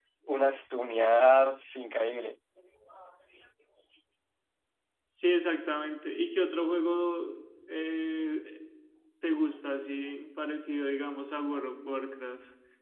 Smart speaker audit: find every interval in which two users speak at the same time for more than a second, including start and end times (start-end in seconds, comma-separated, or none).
none